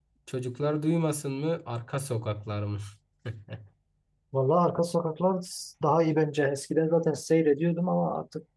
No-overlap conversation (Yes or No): Yes